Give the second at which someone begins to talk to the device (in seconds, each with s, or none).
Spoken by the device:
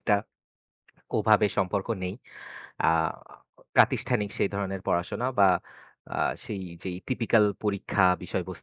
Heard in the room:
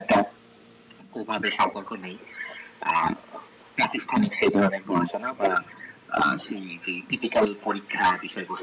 none